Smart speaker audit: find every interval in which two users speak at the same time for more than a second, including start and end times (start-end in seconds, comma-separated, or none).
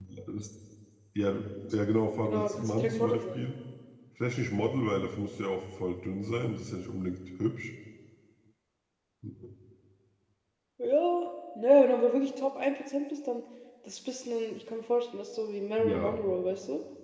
2.2-3.4